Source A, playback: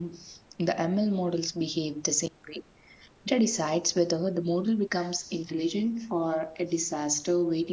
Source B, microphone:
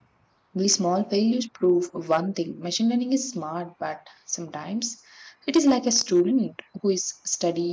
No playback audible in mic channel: Yes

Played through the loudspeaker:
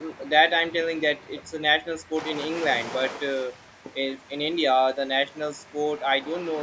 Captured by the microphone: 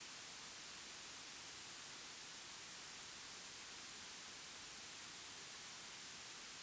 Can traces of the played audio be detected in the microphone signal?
No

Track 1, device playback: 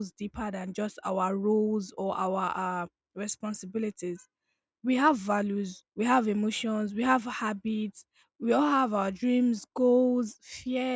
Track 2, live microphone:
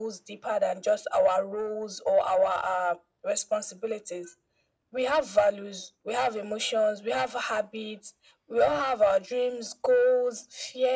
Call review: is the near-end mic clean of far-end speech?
No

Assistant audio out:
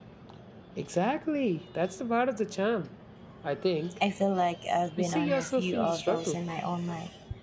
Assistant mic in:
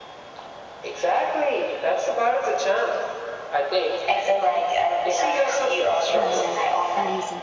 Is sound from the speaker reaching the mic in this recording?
Yes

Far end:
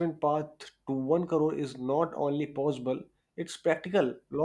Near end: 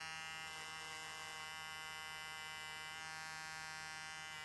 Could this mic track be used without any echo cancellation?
Yes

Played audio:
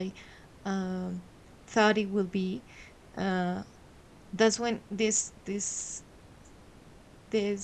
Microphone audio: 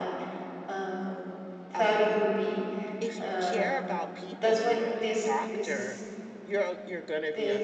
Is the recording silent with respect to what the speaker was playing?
No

